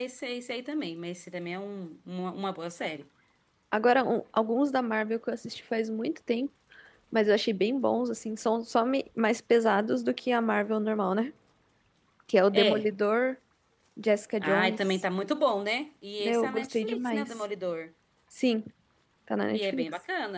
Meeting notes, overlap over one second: present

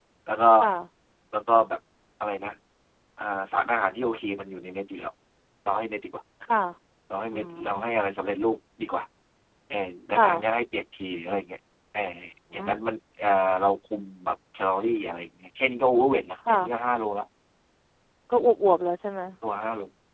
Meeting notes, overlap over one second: none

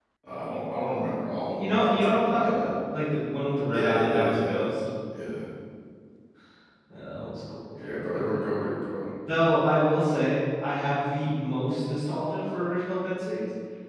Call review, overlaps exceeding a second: present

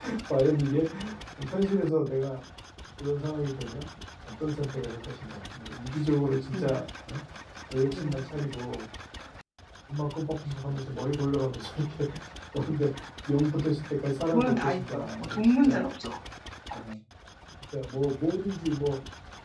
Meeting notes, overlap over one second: present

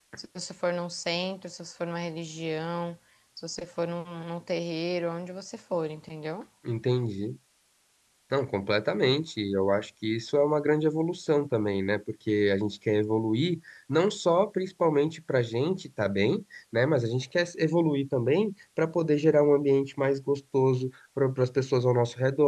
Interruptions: none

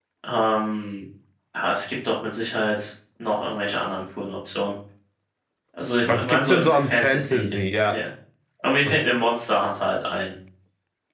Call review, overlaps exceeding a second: present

